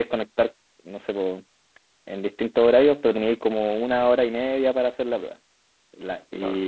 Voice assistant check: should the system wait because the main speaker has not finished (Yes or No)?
Yes